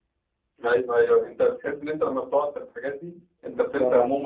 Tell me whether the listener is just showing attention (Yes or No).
No